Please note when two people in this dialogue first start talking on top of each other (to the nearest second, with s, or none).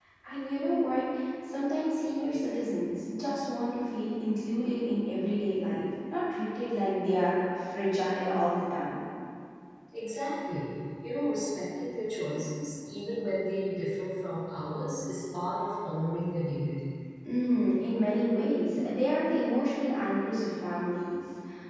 none